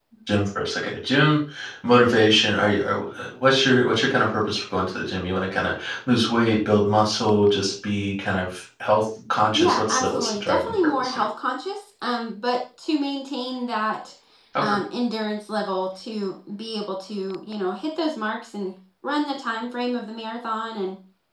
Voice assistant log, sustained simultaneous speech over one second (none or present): present